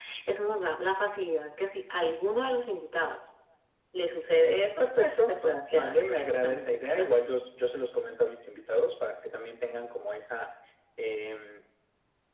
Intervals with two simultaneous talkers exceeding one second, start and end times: 5.7-7.1

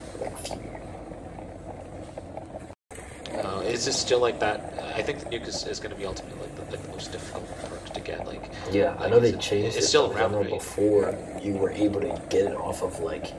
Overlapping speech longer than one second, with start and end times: 9.0-10.6

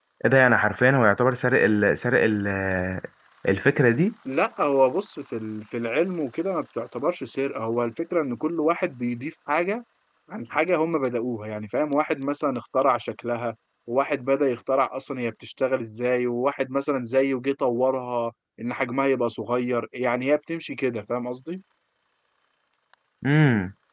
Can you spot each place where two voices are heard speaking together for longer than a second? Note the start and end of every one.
none

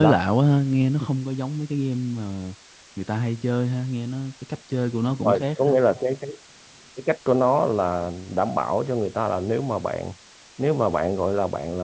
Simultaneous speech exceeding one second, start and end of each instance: none

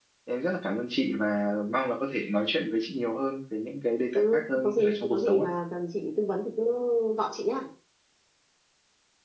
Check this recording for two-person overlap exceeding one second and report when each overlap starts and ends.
4.2-5.5

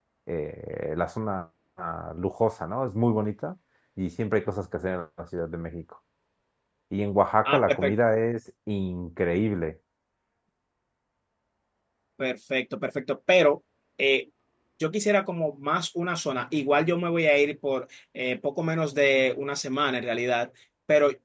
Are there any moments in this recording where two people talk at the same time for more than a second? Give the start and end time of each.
none

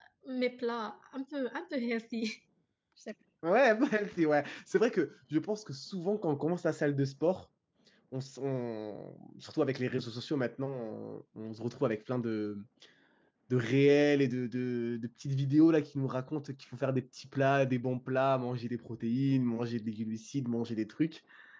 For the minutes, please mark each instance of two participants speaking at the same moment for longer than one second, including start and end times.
none

